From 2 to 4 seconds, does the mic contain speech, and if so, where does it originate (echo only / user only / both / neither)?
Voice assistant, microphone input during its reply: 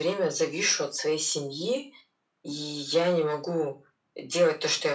echo only